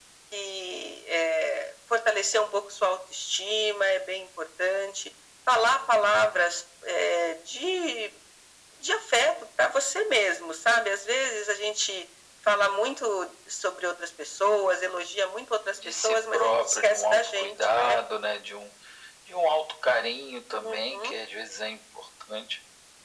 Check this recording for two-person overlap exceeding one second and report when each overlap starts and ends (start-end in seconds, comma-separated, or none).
16.0-18.0